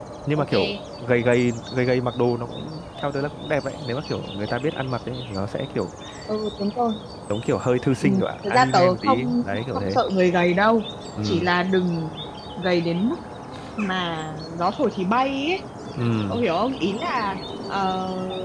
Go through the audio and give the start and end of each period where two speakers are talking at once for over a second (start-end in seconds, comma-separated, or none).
8.0-10.0